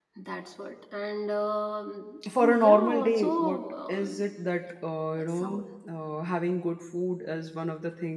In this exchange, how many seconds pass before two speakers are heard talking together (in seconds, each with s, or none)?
2.4 s